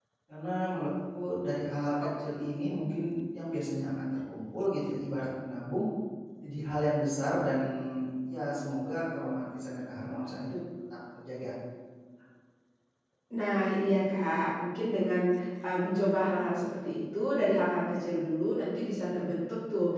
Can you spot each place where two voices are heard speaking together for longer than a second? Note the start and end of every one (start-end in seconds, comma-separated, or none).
none